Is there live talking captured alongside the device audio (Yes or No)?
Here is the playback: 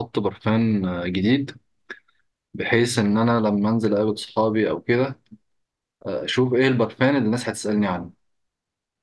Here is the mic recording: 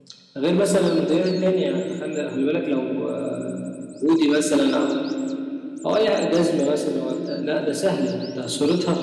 Yes